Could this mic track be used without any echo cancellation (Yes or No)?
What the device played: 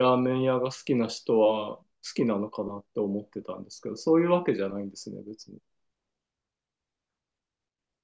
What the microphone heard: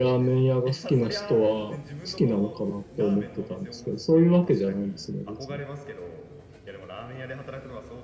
No